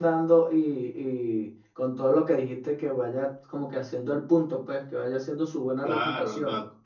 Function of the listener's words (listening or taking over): taking over